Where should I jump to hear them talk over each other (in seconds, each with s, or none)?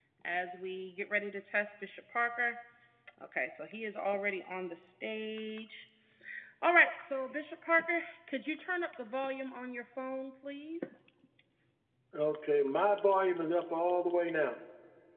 none